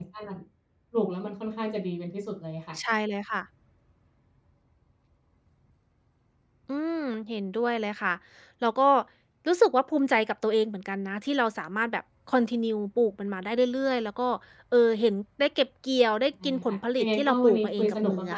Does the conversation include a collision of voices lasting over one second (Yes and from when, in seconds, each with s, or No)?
Yes, from 16.4 s